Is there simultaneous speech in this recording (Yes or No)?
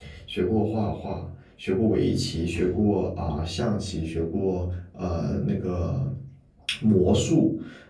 No